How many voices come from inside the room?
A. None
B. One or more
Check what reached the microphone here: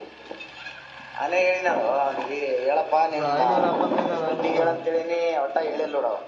B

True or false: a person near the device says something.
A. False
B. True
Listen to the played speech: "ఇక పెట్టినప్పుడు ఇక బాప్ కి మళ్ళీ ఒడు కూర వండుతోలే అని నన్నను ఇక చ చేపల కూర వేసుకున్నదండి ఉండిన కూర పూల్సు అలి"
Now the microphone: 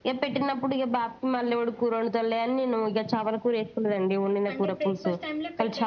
B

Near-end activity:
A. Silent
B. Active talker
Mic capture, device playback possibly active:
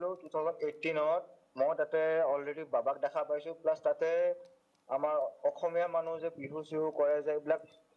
A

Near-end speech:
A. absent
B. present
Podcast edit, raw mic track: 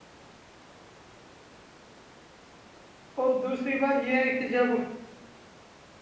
B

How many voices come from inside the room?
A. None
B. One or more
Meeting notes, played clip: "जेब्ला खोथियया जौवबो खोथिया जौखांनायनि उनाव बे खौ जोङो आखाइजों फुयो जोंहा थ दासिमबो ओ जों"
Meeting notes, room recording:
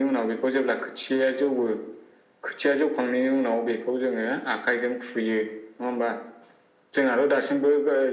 A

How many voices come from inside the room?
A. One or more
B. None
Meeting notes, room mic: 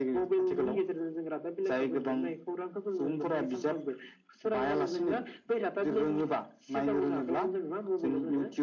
B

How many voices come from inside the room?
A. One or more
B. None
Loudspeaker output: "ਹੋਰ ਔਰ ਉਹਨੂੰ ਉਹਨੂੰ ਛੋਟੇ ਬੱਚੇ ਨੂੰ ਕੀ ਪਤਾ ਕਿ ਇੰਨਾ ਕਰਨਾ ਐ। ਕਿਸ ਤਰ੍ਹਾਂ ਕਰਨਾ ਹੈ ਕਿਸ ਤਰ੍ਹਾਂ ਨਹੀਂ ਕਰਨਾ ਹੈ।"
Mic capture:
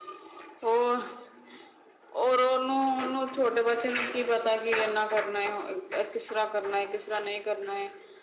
B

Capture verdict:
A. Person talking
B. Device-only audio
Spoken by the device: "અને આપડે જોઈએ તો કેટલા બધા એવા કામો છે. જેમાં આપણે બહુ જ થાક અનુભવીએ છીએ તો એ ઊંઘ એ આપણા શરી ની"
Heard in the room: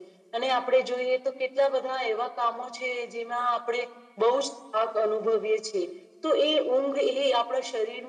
B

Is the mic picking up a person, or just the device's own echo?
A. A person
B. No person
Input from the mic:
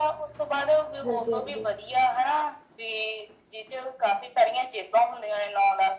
A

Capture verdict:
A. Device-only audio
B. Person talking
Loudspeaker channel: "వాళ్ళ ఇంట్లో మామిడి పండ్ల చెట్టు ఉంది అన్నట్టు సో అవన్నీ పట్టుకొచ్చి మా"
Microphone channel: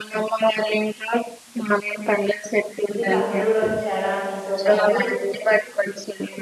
B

